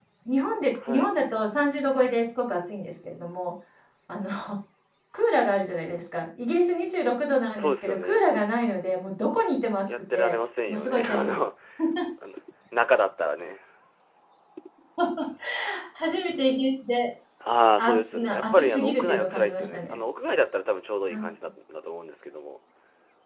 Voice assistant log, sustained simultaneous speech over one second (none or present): present